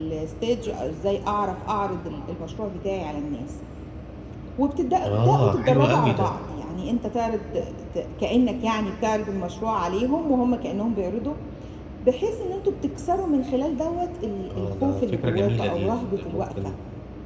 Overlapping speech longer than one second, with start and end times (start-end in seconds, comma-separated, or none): 5.0-6.3, 14.6-16.7